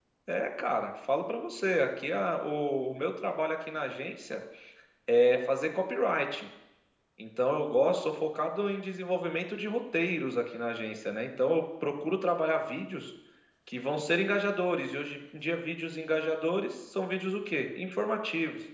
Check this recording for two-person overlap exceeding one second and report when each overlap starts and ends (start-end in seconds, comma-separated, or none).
none